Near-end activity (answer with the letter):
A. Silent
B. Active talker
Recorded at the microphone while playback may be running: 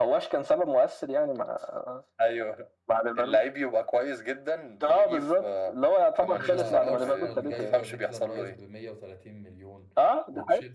B